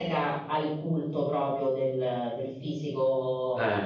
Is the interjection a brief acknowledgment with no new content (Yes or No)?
Yes